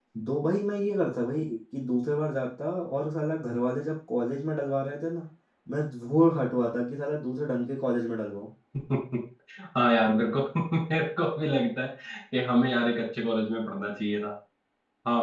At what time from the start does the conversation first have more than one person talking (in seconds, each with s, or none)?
none